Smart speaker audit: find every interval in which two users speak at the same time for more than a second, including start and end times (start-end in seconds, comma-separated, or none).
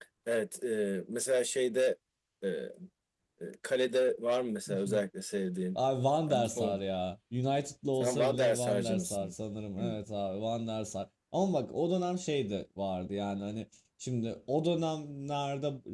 7.9-9.3